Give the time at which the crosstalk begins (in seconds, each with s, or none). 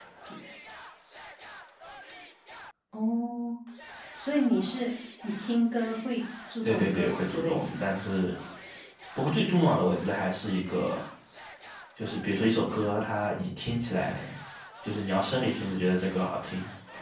6.6 s